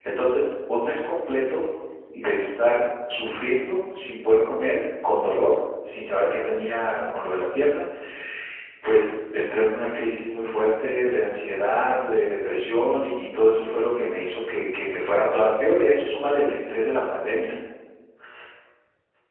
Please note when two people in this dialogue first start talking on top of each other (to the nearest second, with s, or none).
none